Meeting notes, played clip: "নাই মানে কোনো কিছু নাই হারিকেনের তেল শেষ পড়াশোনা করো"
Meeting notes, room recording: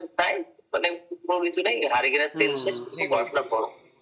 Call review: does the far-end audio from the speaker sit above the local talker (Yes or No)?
Yes